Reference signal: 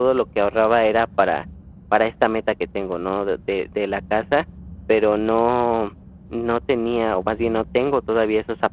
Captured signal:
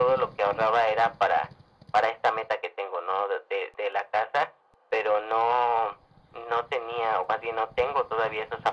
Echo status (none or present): present